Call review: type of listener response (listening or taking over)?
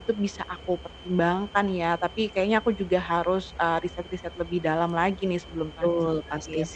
taking over